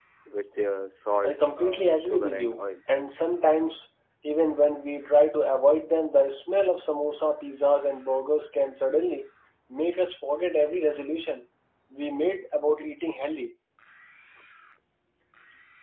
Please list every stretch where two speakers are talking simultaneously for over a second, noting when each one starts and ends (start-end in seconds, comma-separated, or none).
1.2-2.6